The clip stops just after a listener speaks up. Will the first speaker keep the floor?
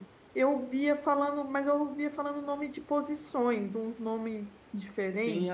No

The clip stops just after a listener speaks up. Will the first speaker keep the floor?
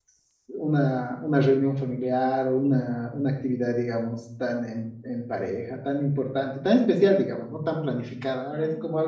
Yes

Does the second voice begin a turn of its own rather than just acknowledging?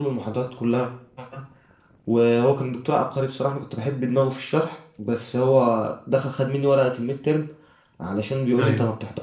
No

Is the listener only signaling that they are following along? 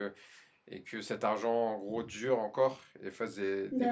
Yes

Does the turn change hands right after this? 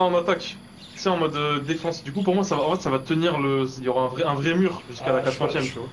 Yes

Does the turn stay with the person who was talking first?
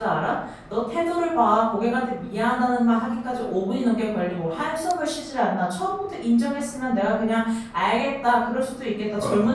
Yes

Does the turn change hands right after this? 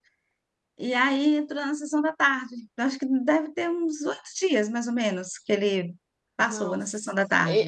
Yes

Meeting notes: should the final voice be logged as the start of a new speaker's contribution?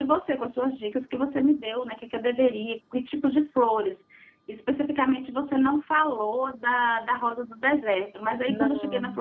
No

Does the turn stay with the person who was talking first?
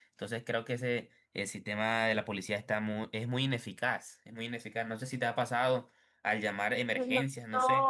No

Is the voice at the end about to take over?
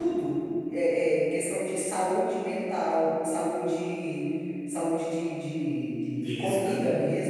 No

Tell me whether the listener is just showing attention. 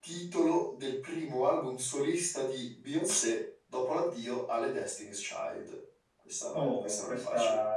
No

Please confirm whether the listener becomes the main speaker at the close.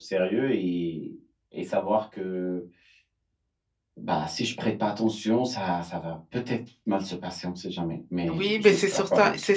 Yes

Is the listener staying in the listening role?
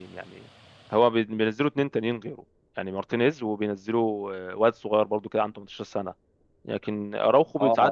Yes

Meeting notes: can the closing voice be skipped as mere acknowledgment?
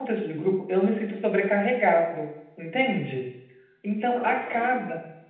Yes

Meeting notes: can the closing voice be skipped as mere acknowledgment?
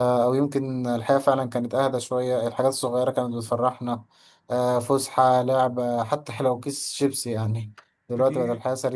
Yes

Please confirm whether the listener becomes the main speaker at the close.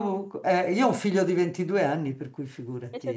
Yes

